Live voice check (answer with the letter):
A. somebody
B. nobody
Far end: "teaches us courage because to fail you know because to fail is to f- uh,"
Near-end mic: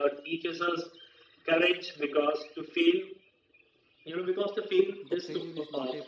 A